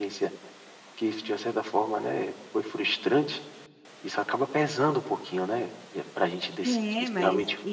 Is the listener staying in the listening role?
No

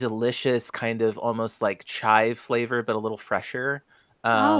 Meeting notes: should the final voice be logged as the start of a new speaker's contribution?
No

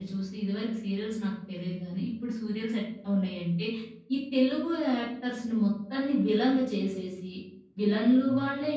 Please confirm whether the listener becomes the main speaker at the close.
No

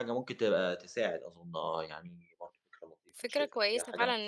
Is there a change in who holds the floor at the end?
Yes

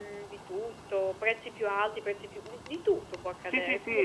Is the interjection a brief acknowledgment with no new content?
No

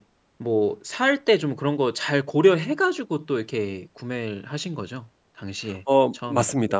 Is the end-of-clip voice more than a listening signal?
Yes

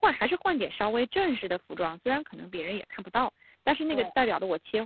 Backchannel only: Yes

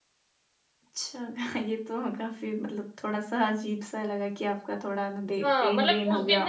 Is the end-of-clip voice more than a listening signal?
Yes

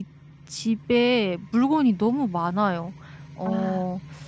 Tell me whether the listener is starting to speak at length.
No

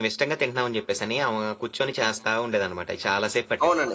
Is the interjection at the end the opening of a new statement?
Yes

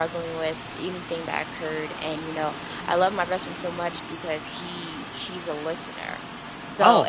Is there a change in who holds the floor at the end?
No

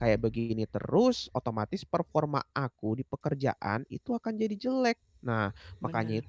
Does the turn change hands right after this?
No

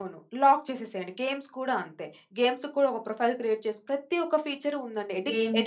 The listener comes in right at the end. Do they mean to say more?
Yes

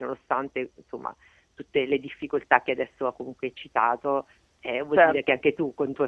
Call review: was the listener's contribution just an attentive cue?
Yes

